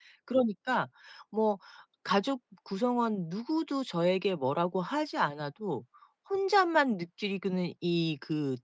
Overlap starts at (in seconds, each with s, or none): none